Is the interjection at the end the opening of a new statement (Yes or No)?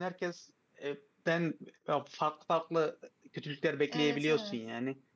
Yes